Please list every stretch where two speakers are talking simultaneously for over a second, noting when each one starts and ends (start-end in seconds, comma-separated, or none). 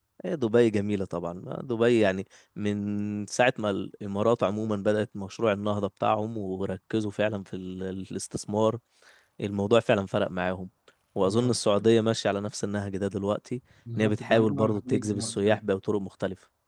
14.0-15.7